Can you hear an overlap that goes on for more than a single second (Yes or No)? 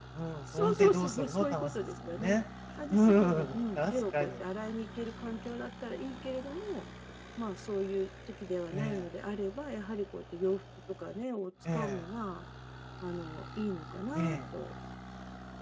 Yes